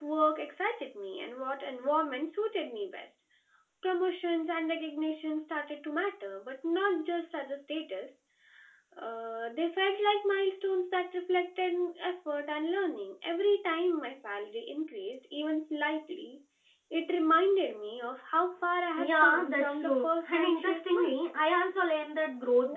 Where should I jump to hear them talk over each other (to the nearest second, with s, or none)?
19 s